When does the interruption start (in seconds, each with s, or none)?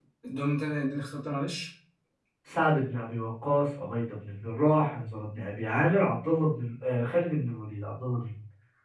none